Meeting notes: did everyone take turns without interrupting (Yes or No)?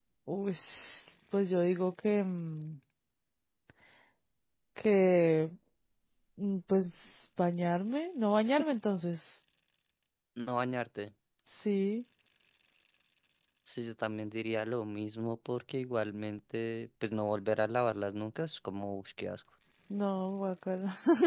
Yes